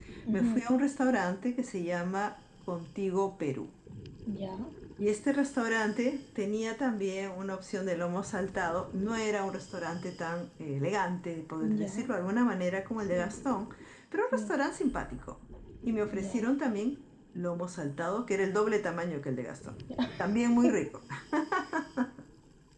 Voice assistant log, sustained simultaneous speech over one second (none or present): none